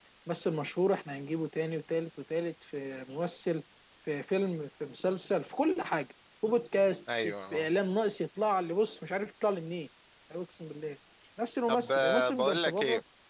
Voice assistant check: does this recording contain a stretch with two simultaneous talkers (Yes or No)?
Yes